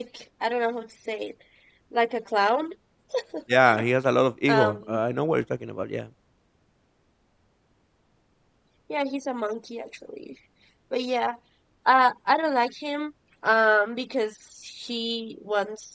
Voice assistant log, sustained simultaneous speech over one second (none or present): none